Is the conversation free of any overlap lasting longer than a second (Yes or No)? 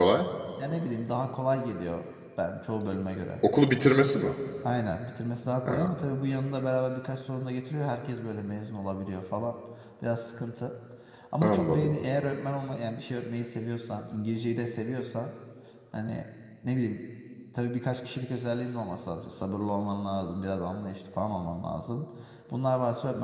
Yes